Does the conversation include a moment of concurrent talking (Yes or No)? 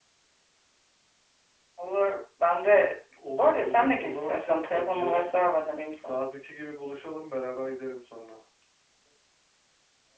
Yes